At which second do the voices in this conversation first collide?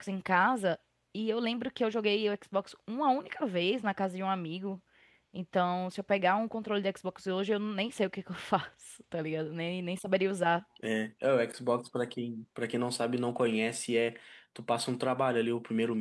none

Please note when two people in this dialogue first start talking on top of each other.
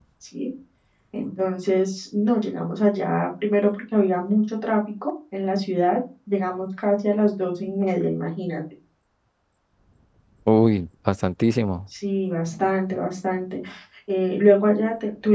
none

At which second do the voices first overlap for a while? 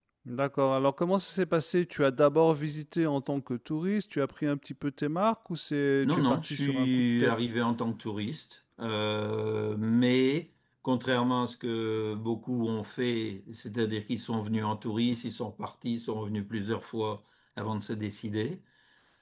6.0 s

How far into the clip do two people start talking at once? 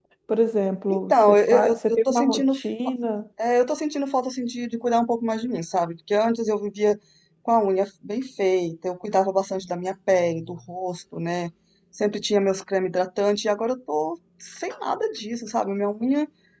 0.9 s

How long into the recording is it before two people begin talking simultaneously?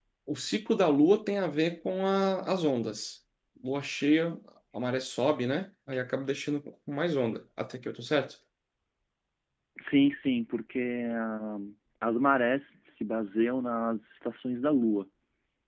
none

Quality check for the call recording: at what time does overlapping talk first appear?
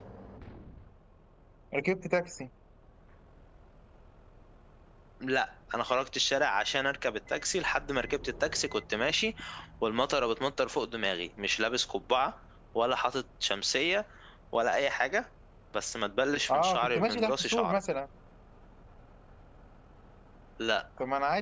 16.5 s

